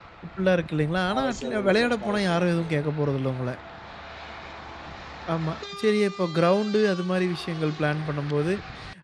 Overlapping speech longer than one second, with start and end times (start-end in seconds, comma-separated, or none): 1.2-2.8